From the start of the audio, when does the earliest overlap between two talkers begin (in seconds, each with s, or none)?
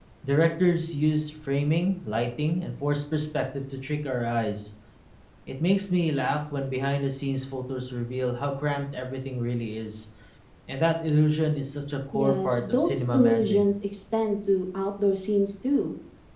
12.1 s